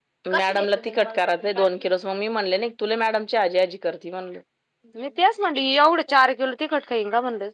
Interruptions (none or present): none